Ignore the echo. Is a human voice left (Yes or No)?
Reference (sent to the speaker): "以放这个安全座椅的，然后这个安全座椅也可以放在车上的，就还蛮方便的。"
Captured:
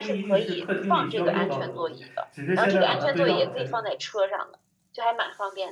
Yes